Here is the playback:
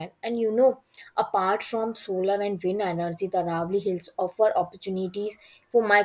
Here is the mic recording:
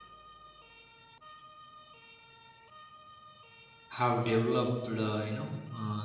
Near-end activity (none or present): present